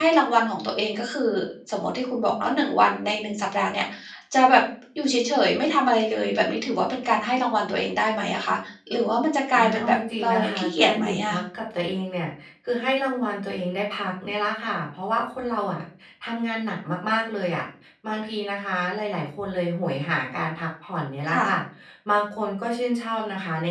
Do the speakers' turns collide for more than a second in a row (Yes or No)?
Yes